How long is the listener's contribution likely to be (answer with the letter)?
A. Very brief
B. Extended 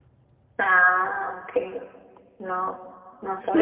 B